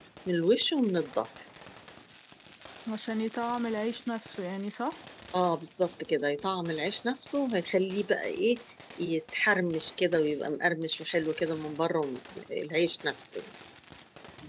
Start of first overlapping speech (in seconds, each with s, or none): none